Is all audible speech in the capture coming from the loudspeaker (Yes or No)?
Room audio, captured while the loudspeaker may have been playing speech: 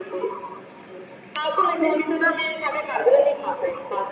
Yes